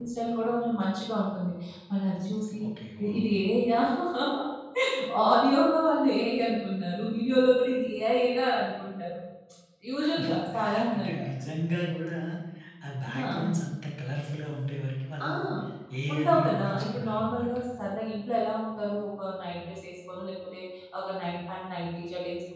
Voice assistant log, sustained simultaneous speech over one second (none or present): present